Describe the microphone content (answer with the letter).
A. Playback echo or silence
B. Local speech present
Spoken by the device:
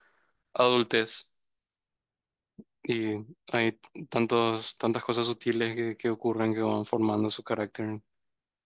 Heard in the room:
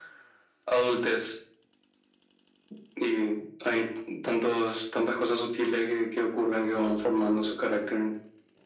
A